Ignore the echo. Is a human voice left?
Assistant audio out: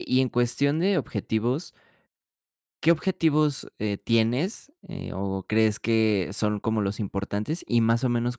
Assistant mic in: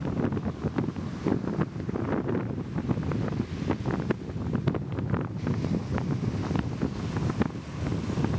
No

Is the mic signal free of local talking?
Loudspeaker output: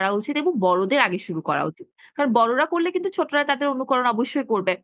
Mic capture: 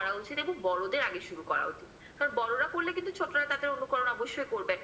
Yes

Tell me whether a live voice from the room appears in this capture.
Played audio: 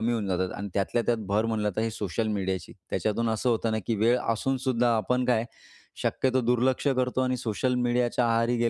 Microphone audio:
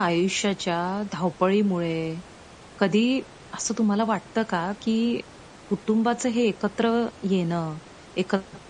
Yes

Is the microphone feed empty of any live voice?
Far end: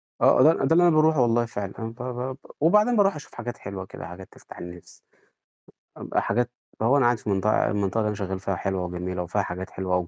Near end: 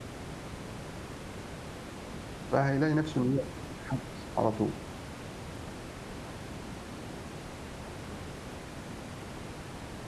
No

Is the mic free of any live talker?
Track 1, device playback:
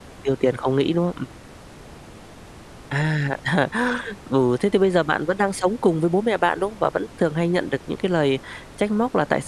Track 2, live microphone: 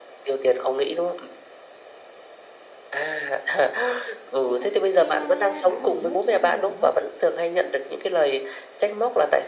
No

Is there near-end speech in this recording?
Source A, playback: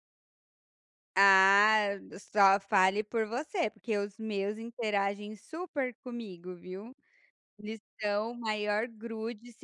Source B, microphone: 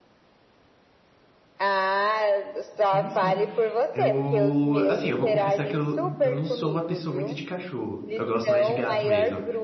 Yes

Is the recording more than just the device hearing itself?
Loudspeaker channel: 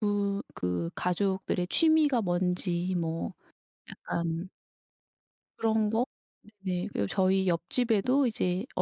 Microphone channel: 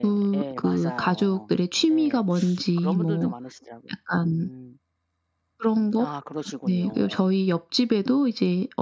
Yes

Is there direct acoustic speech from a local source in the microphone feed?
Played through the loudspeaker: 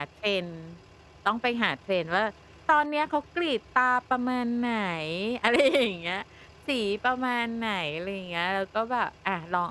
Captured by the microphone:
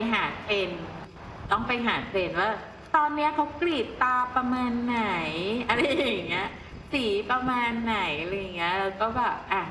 No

